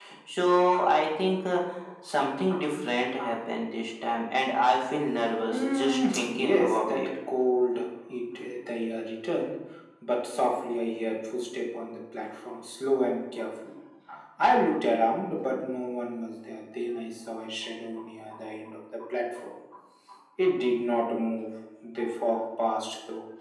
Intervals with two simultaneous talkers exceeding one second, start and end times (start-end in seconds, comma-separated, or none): 5.5-7.1